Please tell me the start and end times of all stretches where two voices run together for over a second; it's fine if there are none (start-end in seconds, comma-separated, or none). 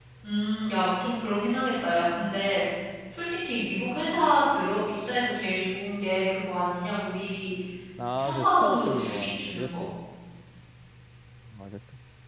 8.2-9.8